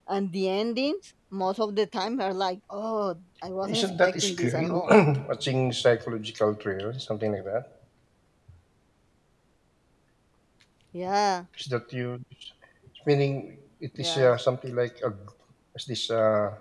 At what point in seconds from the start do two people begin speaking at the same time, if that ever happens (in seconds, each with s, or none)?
3.6 s